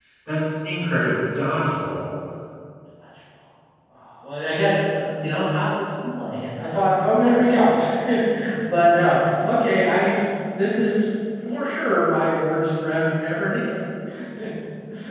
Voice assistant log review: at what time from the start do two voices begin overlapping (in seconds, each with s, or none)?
none